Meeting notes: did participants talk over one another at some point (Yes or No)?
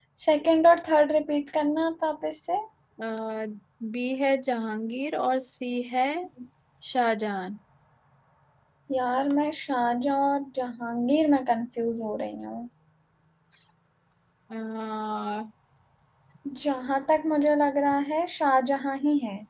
No